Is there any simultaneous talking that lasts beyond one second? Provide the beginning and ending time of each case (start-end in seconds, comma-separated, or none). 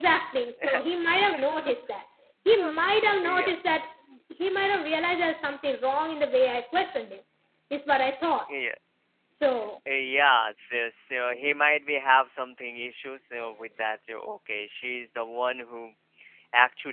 none